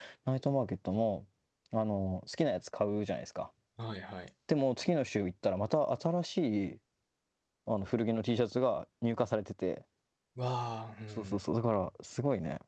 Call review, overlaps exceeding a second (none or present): none